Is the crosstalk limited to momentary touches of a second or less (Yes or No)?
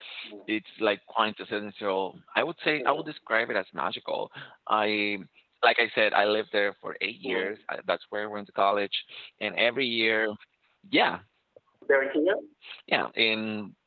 Yes